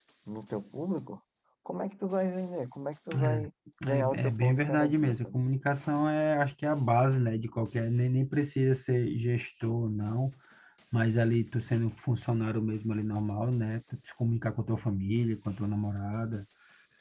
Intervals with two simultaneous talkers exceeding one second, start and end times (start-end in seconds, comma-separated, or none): 3.9-5.4